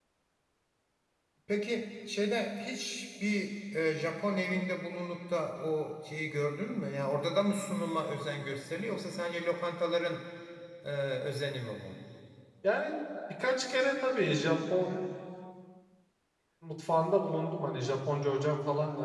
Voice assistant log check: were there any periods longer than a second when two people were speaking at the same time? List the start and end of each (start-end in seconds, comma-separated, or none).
none